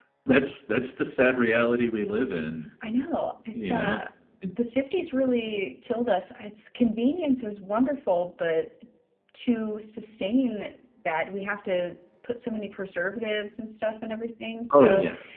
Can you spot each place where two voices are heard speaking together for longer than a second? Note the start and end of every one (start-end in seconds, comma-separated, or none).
none